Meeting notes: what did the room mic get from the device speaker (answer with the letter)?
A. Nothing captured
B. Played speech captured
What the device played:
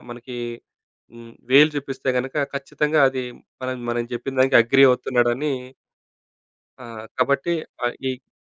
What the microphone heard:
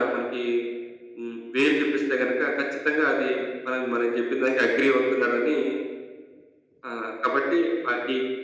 B